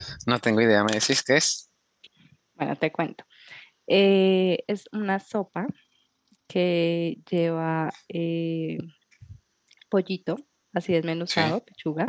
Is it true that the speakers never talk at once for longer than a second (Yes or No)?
Yes